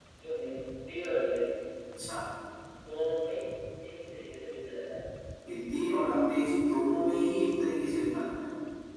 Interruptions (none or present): none